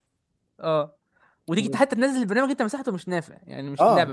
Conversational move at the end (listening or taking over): taking over